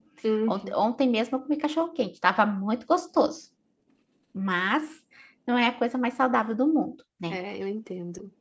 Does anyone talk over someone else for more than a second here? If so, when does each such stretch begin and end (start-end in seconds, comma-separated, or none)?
none